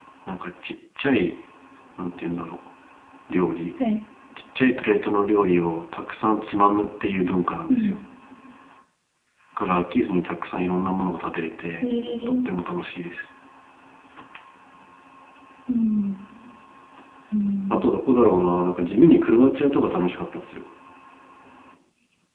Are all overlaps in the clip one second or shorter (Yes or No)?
Yes